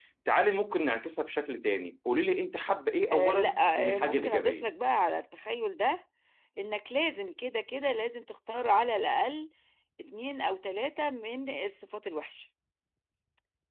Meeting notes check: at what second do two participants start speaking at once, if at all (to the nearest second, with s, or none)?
3 s